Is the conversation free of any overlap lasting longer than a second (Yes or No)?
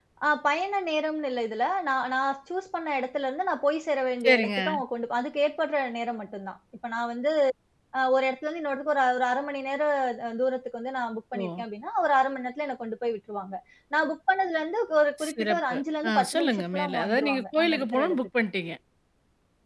No